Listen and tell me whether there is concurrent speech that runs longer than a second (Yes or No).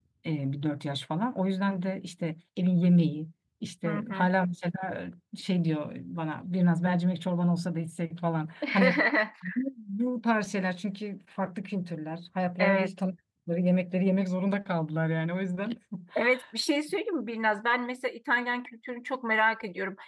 No